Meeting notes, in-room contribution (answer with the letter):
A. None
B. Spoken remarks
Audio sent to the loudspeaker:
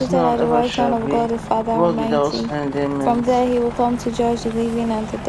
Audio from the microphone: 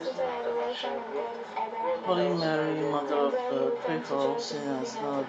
B